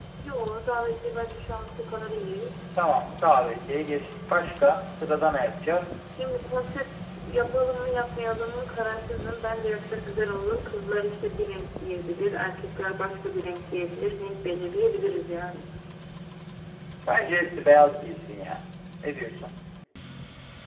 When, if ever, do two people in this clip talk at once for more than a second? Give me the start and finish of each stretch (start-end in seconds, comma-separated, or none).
none